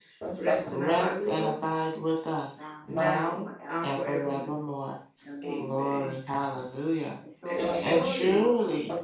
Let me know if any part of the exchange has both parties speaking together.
Yes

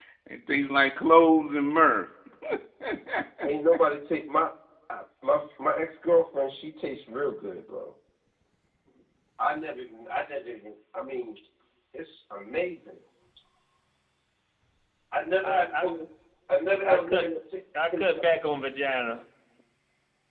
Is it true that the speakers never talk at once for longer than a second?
Yes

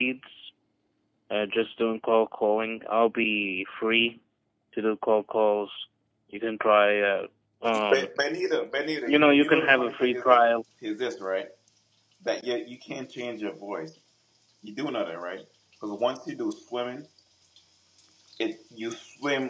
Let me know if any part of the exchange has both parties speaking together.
Yes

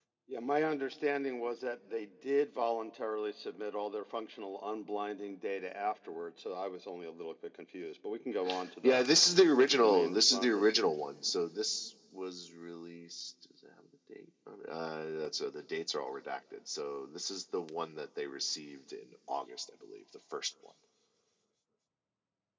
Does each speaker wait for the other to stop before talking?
No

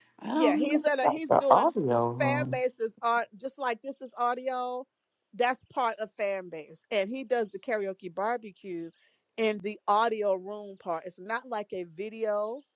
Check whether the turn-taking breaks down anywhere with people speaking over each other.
Yes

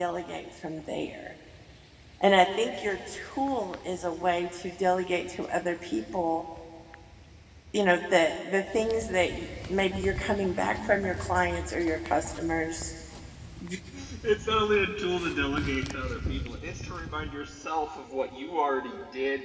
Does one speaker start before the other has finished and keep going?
No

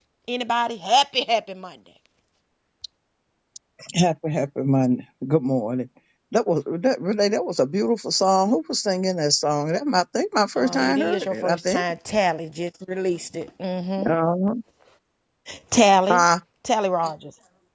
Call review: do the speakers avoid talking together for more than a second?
No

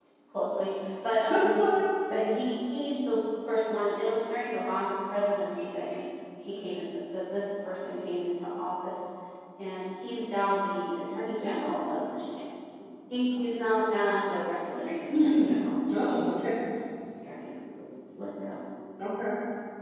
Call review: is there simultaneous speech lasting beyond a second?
No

